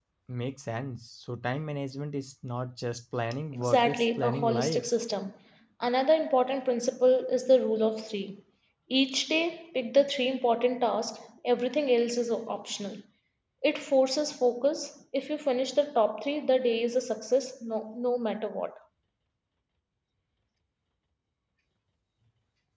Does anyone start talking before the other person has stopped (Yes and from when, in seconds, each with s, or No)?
Yes, from 3.5 s